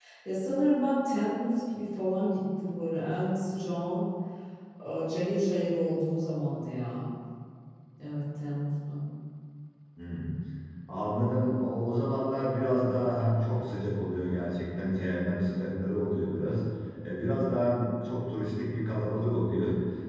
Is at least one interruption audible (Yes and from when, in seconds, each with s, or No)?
No